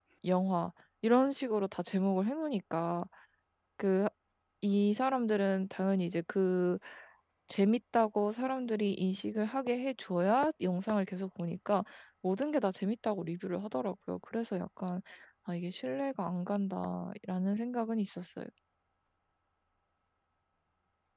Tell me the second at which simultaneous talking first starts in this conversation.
none

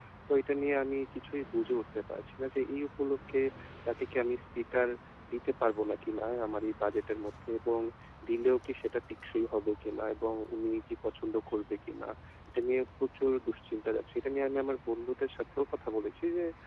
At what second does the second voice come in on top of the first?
none

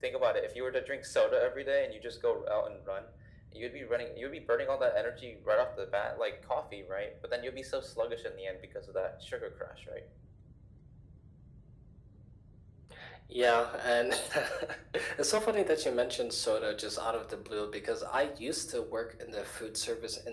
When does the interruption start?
none

